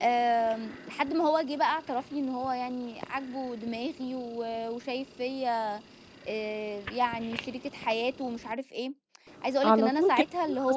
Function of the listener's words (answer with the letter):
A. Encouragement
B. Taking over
B